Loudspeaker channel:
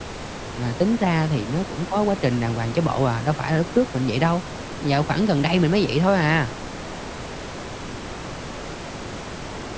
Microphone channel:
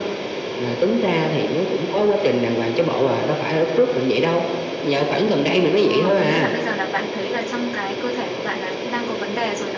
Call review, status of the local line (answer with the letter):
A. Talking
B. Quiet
A